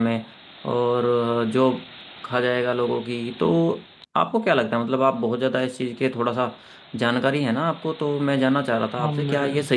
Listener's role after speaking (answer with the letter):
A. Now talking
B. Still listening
B